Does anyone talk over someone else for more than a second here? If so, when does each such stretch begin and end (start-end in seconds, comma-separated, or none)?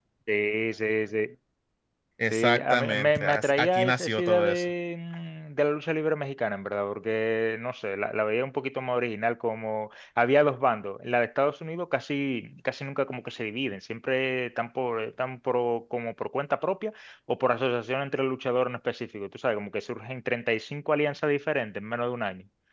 2.3-4.6